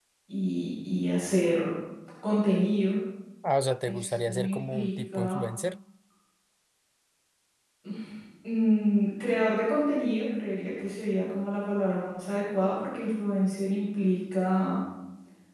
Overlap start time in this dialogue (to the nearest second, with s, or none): 4 s